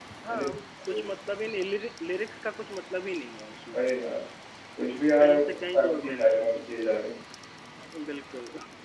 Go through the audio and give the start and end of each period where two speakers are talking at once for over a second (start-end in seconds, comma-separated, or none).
5.2-6.5